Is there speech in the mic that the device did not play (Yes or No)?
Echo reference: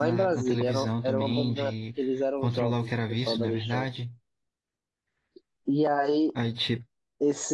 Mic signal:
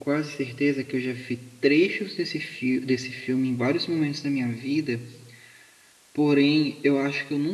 Yes